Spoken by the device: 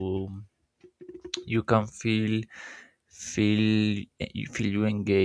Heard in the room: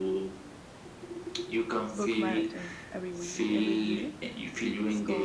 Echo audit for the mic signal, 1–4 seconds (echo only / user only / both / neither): both